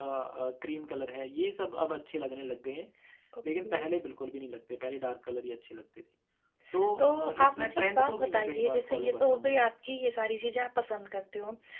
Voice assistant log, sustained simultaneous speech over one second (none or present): present